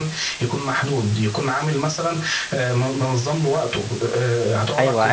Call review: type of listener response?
taking over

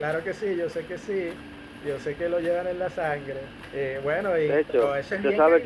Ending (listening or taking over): taking over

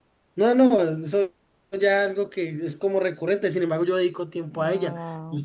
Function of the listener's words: taking over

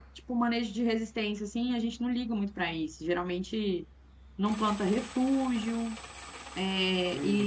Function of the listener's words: taking over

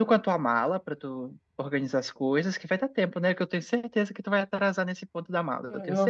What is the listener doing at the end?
taking over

